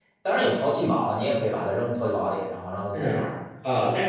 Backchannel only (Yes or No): No